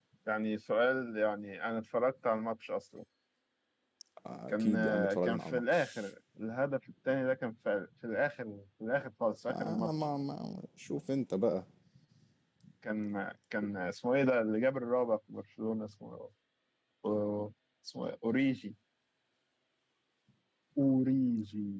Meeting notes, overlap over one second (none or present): present